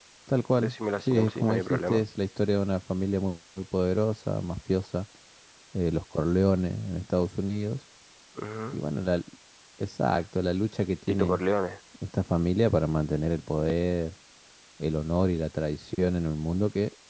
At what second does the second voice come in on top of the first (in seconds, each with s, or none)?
0.6 s